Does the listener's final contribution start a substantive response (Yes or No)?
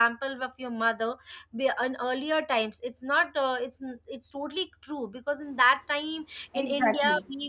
No